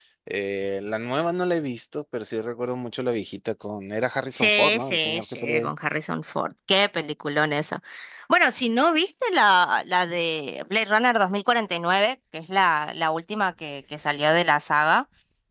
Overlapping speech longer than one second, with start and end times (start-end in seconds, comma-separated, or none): 4.3-5.7